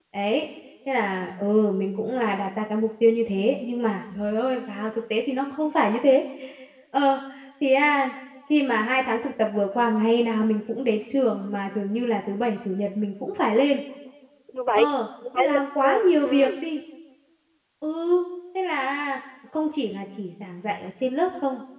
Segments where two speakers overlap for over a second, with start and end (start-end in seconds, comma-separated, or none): 15.4-16.6